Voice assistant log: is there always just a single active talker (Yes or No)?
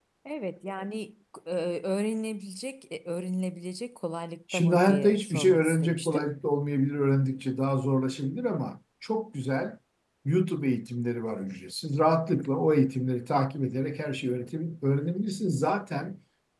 No